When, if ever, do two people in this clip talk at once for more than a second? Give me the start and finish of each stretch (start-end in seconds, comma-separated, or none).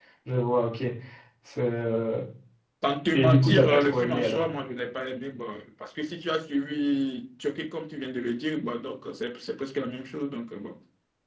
3.1-4.4